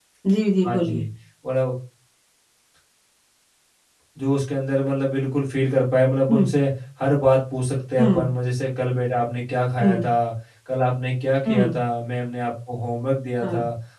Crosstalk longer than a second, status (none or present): none